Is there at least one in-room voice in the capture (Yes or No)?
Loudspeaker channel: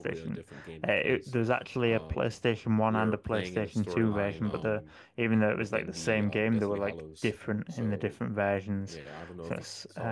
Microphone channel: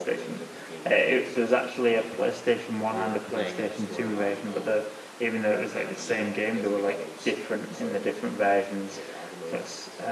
No